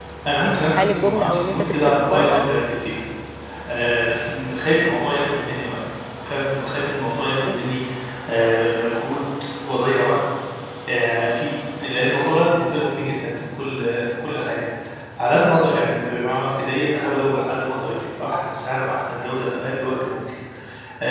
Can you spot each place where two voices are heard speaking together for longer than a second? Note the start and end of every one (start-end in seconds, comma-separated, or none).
0.7-2.5